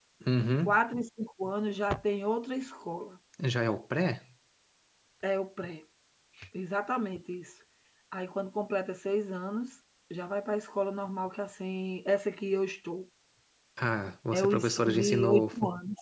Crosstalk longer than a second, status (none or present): present